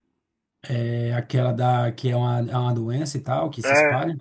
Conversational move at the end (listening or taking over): taking over